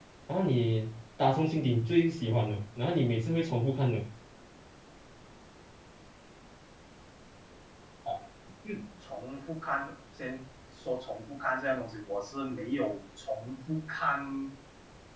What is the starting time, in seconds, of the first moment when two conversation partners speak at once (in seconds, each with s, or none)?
none